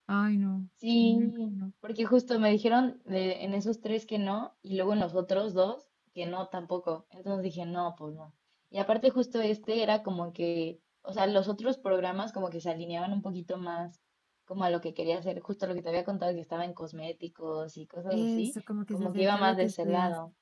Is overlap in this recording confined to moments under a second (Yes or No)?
No